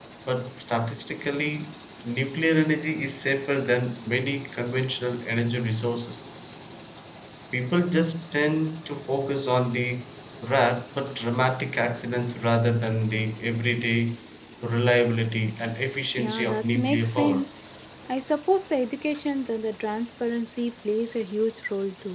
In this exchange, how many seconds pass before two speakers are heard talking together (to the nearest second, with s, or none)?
16 s